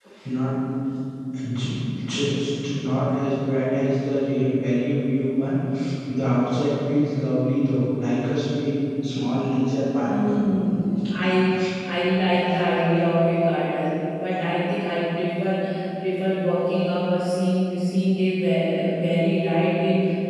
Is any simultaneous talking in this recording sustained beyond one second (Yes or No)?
No